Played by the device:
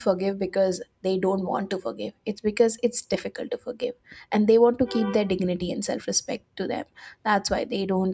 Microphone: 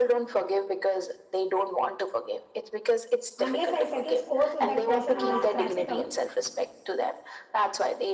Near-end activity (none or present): present